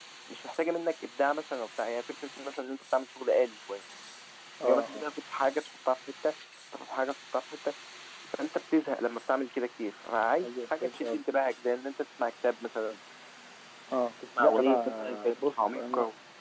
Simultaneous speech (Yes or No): Yes